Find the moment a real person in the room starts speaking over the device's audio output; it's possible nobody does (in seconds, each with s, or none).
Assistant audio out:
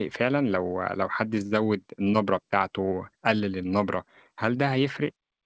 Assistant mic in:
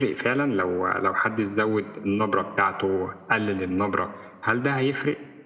none